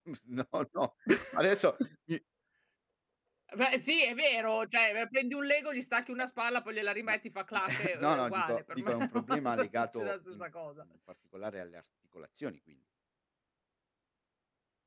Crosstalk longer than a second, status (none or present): present